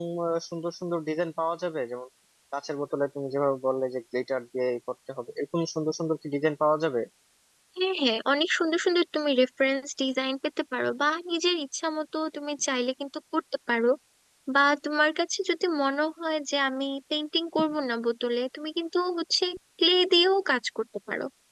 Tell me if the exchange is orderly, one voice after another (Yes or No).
Yes